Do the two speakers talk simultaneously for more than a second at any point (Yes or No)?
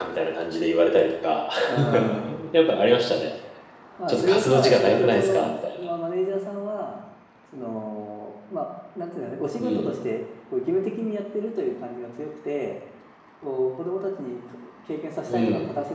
Yes